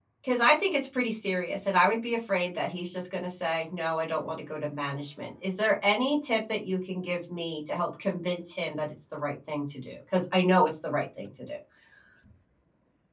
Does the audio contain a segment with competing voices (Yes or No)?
No